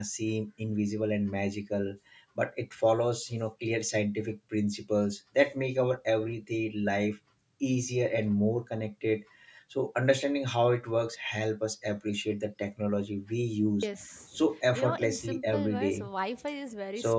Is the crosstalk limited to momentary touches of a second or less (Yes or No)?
No